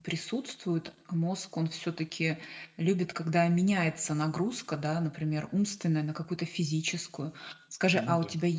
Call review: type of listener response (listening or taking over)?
listening